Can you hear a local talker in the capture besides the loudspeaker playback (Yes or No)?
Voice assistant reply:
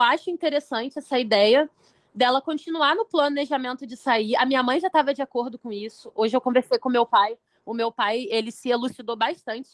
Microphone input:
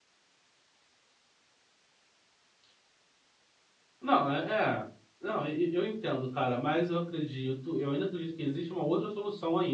Yes